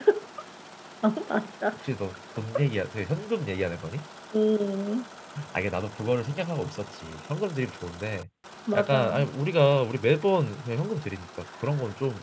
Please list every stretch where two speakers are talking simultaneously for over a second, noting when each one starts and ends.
none

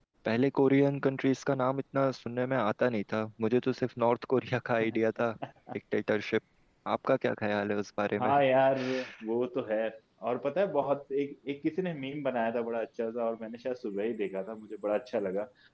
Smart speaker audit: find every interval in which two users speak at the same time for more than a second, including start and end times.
none

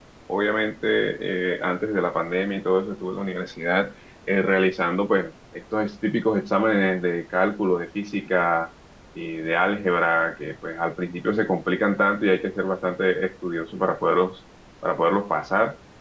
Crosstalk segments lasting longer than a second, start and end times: none

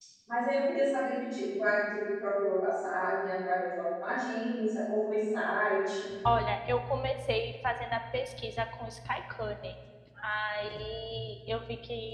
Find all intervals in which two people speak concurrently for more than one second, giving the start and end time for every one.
none

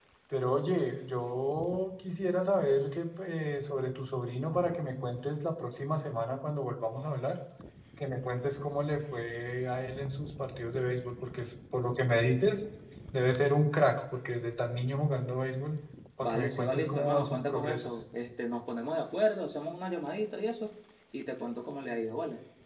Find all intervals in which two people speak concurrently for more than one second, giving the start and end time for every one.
16.2-17.9

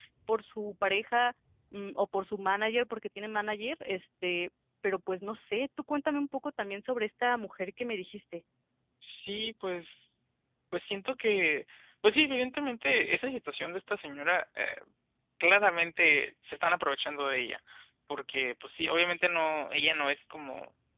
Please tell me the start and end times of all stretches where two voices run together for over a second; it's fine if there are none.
none

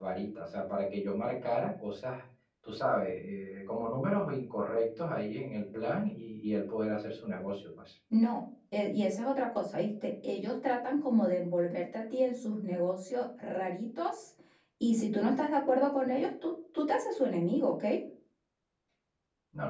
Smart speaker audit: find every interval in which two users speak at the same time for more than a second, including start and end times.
none

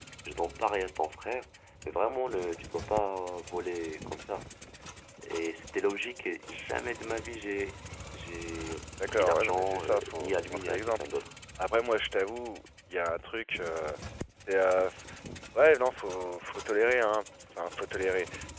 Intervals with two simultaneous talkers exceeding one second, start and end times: 9.1-11.1

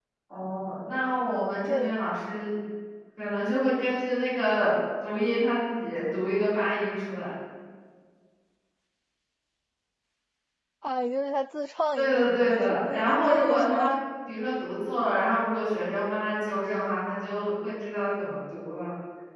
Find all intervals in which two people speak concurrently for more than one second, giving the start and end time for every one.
12.0-14.0

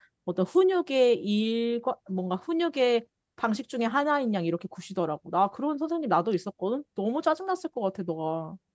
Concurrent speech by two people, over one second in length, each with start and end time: none

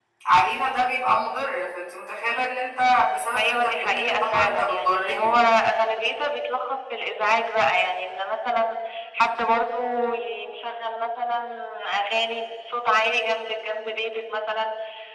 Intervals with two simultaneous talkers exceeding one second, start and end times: 3.4-5.4

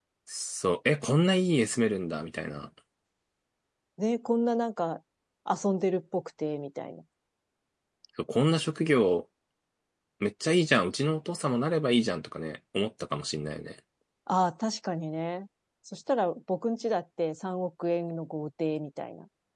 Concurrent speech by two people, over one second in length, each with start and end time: none

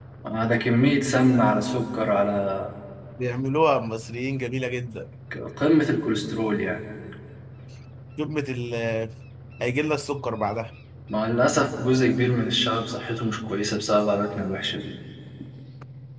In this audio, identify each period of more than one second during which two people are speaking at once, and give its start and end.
none

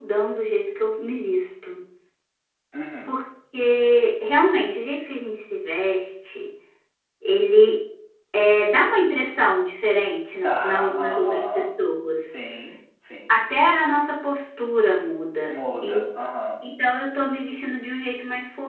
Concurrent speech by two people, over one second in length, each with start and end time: 10.4-11.7

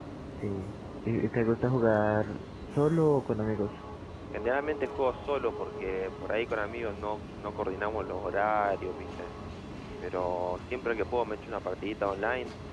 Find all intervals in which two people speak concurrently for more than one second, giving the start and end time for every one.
none

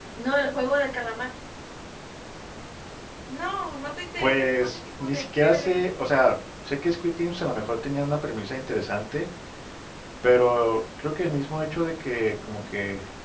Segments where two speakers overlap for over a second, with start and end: 4.2-5.8

